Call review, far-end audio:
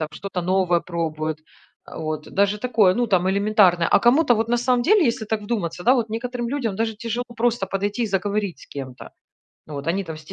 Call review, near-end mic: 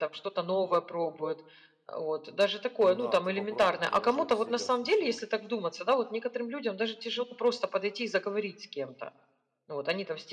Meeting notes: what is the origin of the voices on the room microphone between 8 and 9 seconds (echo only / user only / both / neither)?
echo only